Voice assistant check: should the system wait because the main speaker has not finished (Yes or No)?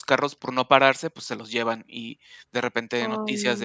Yes